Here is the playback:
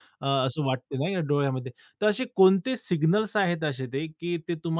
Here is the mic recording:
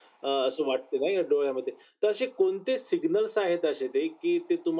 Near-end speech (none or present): none